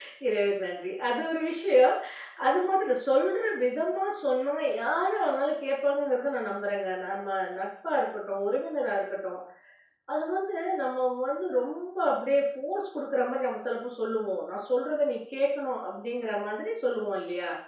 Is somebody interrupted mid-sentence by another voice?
No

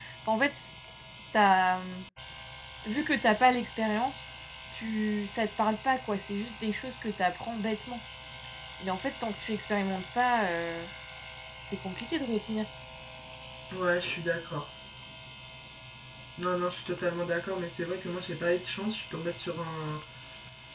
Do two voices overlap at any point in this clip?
No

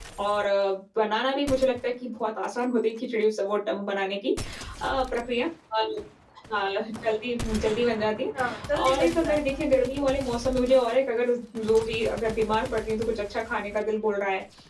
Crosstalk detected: Yes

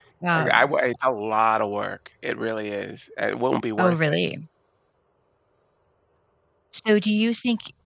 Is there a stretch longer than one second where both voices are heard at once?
No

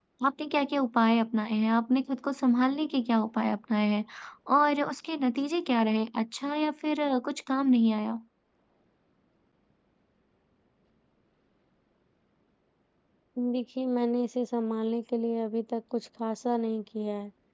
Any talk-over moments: No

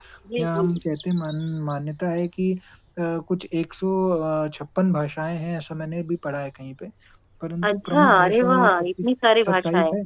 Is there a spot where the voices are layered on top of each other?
Yes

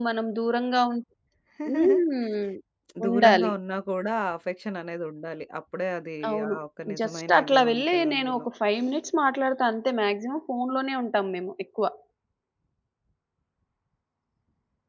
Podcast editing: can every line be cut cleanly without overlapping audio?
No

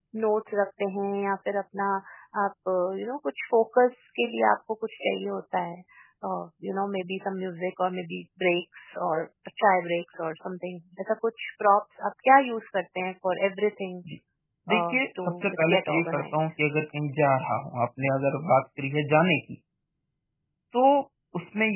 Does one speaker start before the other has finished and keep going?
Yes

